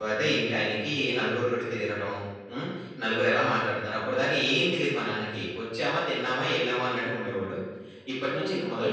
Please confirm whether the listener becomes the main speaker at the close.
No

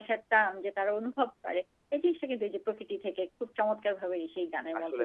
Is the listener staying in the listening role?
No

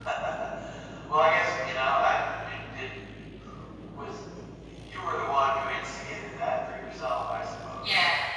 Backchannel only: No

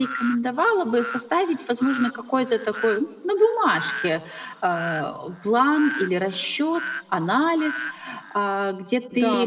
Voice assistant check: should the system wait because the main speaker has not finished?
No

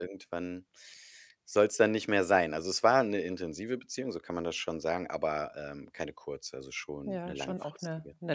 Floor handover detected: Yes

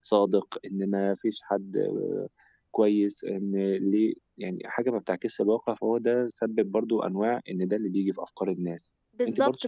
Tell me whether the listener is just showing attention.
No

